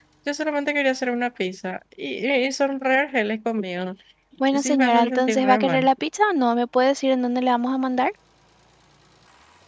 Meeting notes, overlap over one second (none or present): present